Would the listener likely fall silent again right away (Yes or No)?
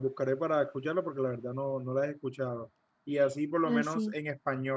Yes